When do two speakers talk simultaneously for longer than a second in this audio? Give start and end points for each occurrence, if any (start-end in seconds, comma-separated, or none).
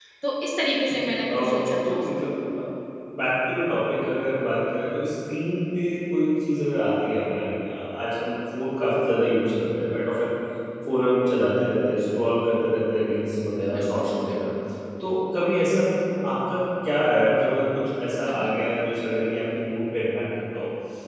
0.9-2.2